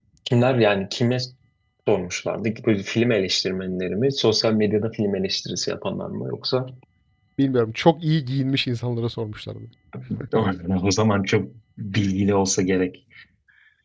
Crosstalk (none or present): none